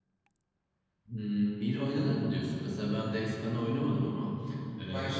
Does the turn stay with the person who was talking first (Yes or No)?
Yes